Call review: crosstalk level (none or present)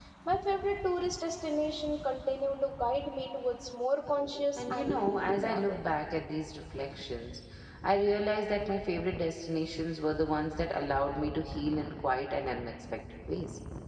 present